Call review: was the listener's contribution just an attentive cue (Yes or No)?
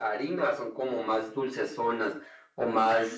Yes